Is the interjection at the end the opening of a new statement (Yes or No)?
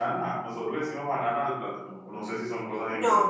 Yes